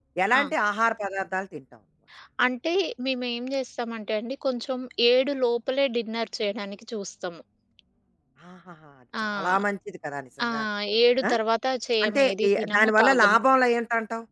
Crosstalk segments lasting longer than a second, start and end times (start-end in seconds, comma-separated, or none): 12.1-13.4